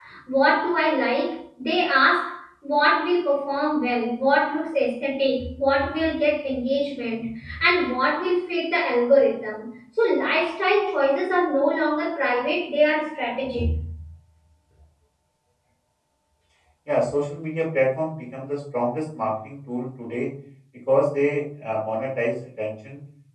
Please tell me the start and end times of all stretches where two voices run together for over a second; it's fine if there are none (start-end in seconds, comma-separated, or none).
none